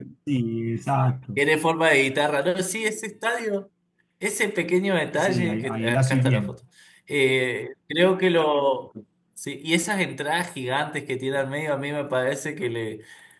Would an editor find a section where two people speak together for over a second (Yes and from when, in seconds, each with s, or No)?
Yes, from 5.2 s